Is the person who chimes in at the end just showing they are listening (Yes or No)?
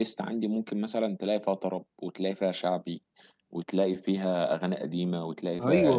No